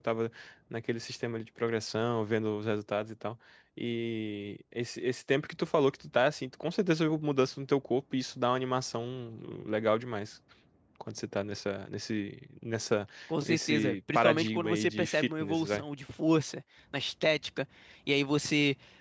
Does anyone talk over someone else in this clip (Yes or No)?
Yes